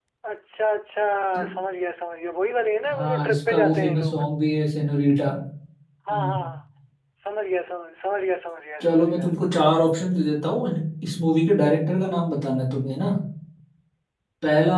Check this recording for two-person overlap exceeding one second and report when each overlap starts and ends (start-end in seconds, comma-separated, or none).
2.9-4.2